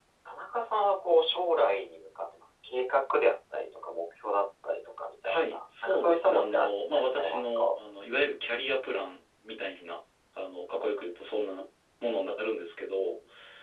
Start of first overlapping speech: 5 s

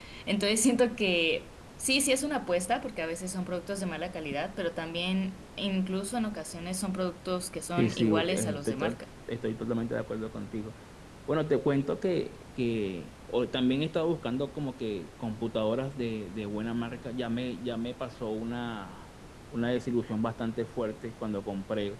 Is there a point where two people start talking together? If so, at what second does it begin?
8 s

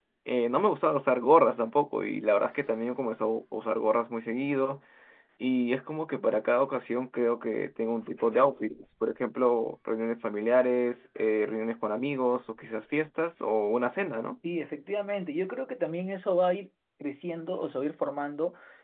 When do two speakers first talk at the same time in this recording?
none

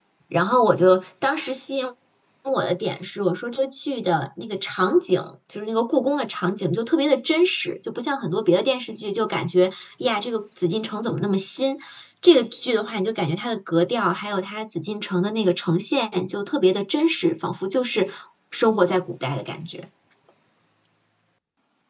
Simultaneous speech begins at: none

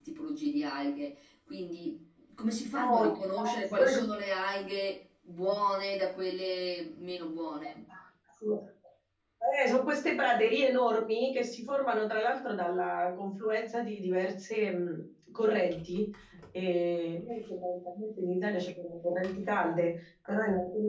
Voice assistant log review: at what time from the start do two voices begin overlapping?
3 s

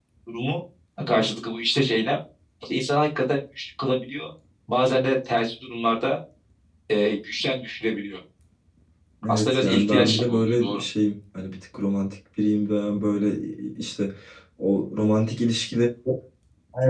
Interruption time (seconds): 9 s

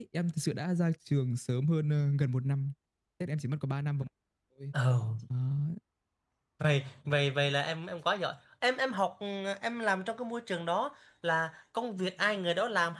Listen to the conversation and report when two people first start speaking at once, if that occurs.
none

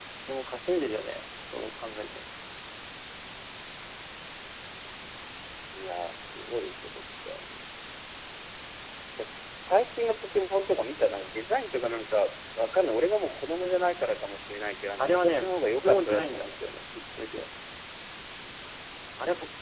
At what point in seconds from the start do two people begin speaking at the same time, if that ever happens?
15 s

